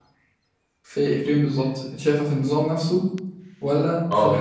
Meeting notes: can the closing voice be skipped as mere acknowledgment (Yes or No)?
Yes